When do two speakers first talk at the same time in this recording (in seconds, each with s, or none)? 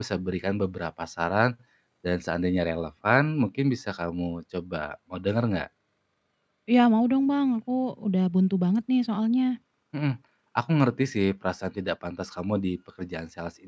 none